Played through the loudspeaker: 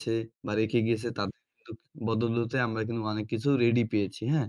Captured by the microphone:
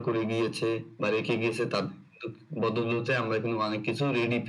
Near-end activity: none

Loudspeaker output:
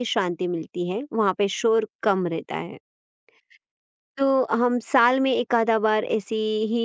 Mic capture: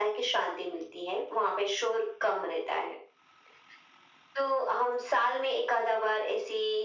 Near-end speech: none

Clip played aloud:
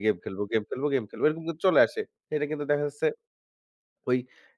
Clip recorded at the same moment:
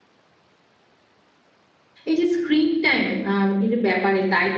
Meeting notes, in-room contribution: present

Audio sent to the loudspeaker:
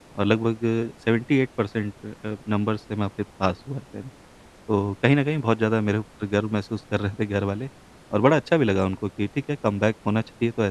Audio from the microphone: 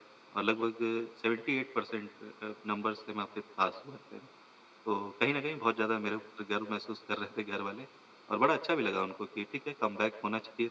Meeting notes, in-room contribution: none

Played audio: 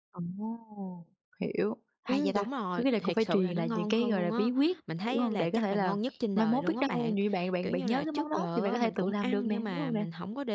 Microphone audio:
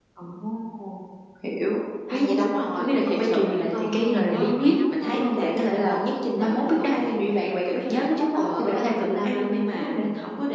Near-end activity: present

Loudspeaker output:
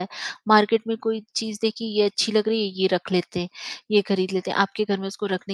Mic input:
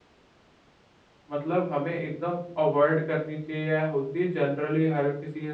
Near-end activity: present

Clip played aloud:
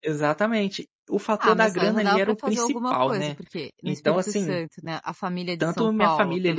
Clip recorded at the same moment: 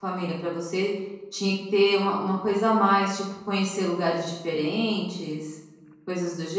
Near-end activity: present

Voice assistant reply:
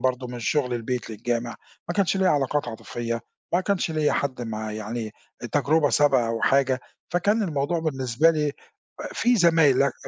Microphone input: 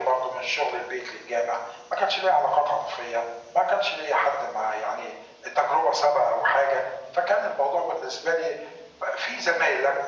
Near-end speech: none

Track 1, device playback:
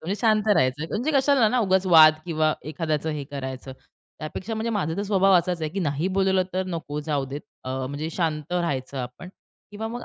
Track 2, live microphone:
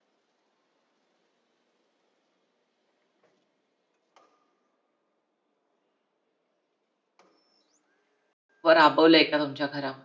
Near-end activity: present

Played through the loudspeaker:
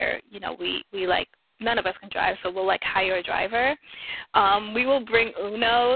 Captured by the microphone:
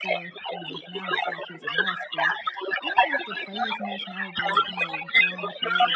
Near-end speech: present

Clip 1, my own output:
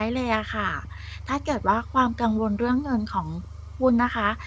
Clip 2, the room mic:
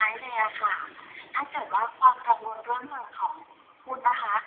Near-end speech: none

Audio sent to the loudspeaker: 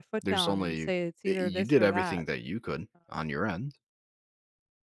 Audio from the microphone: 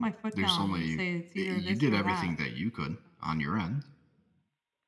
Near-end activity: none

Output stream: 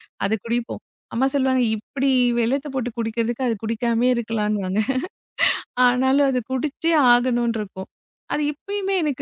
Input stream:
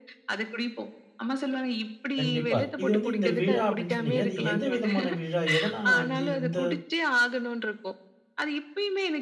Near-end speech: present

